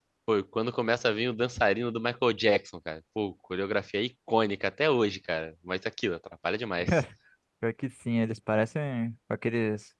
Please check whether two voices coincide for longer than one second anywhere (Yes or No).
No